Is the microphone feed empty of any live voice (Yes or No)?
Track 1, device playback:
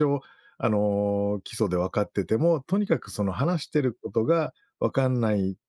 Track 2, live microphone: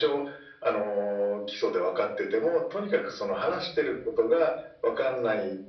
Yes